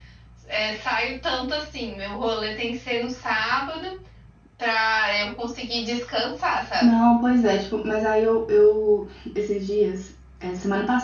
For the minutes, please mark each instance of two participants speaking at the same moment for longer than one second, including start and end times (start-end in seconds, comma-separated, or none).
none